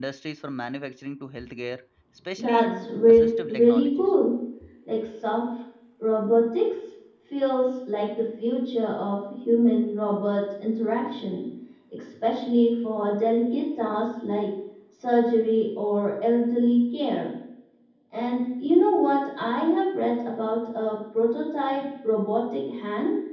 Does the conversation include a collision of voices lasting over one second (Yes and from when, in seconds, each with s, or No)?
Yes, from 2.4 s